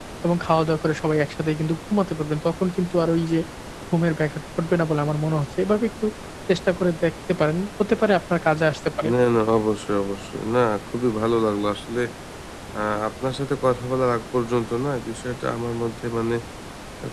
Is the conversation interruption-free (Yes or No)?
Yes